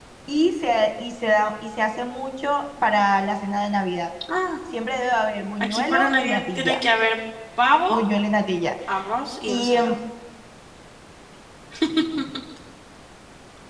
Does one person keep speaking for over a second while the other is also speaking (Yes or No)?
Yes